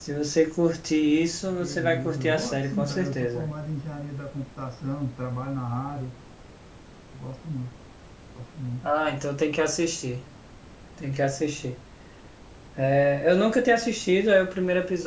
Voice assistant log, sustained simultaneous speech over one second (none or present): present